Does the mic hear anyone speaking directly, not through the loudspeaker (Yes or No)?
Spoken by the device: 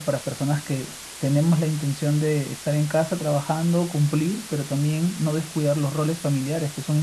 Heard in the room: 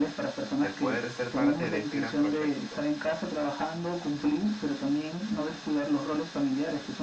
Yes